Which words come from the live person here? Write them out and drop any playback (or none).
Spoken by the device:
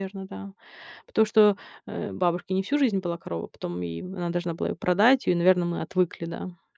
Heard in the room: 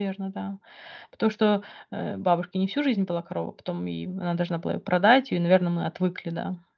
none